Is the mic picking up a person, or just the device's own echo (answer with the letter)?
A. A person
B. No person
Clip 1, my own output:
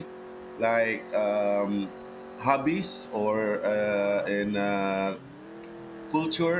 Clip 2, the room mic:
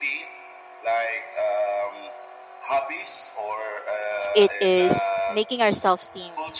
A